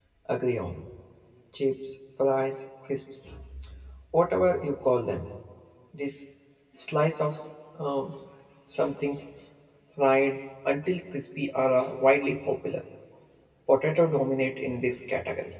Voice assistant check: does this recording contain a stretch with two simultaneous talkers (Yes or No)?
No